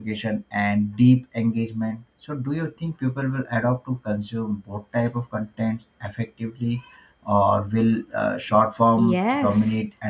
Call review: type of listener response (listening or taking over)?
taking over